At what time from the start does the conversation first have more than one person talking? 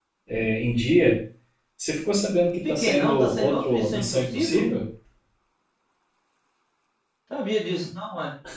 3 s

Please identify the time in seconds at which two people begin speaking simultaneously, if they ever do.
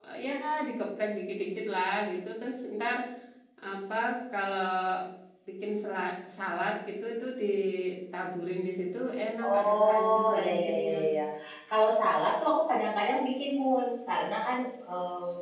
9 s

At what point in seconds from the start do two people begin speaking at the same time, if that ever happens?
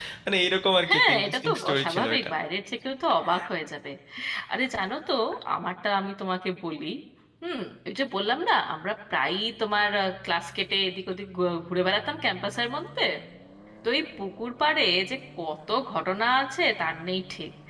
1 s

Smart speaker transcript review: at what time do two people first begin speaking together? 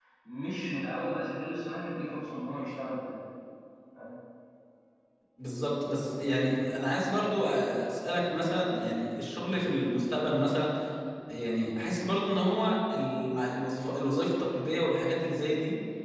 none

